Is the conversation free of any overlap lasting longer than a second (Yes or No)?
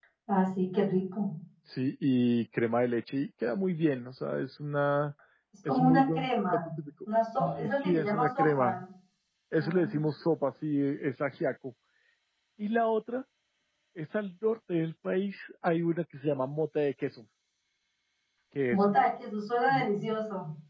No